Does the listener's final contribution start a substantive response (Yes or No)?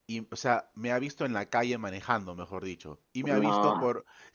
No